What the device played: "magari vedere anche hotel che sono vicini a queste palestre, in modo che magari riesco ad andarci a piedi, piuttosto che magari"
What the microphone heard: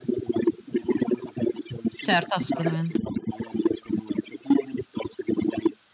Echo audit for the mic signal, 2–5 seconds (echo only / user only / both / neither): both